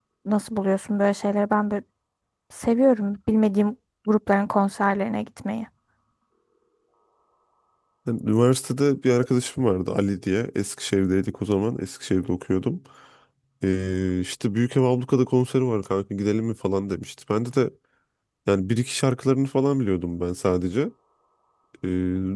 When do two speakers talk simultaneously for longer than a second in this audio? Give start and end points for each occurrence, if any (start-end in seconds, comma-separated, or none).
none